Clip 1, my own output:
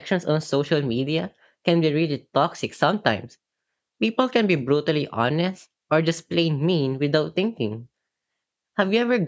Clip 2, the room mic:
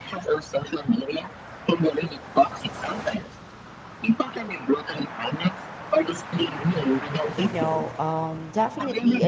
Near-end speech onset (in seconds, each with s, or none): 7.4 s